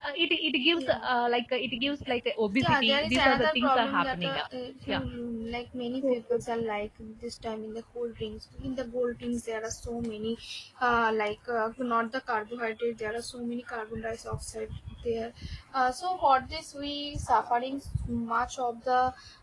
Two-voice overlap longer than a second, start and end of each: 2.6-4.5

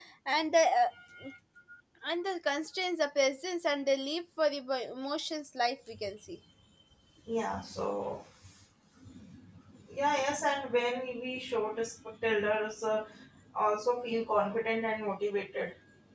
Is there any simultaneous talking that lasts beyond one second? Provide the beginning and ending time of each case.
none

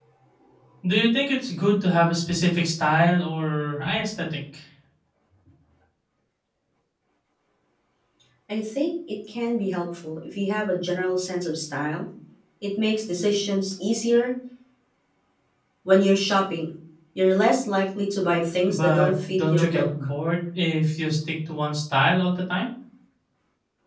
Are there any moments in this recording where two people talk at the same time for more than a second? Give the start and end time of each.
18.6-19.9

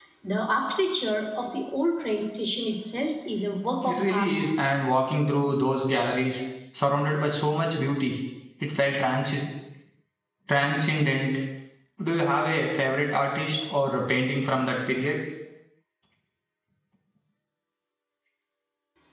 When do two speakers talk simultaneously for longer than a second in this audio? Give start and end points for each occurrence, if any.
none

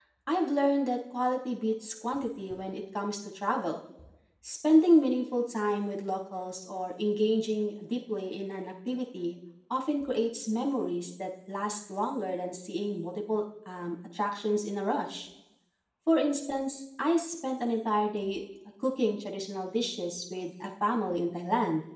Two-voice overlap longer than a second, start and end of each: none

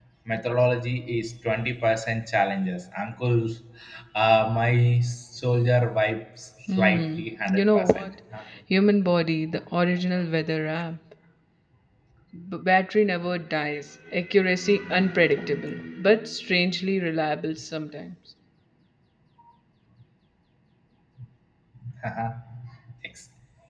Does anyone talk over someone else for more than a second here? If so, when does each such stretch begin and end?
6.7-8.1

